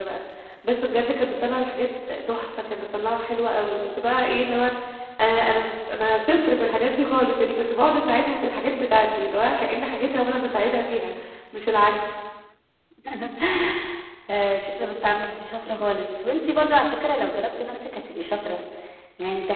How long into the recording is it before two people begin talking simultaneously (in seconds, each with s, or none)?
none